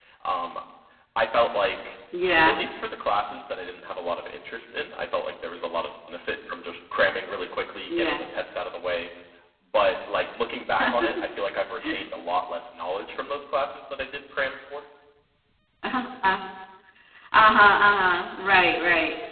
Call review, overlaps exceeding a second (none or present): none